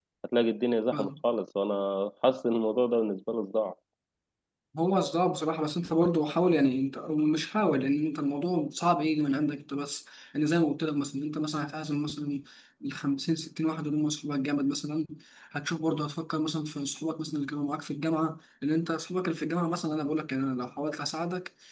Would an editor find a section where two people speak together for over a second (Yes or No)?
No